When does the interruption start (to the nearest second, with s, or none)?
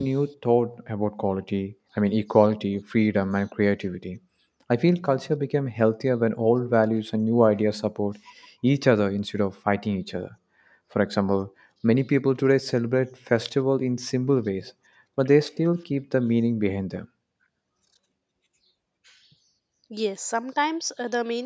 none